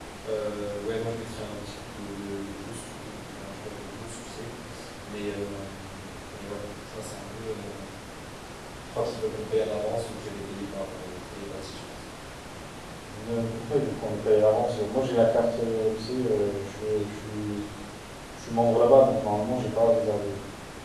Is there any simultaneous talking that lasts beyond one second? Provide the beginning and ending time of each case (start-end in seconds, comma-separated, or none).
none